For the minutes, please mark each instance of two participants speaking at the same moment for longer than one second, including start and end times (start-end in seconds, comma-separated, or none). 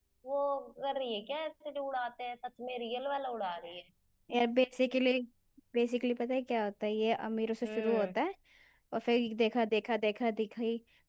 none